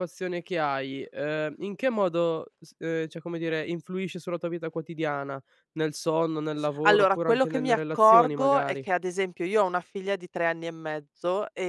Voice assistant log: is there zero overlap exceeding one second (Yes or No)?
No